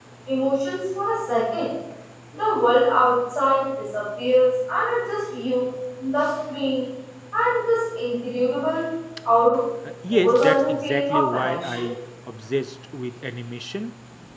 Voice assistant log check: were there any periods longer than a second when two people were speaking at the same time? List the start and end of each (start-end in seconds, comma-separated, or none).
10.1-11.9